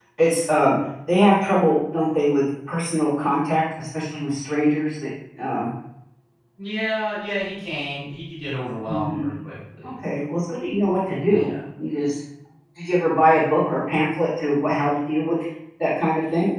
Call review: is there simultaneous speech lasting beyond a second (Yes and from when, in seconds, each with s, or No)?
No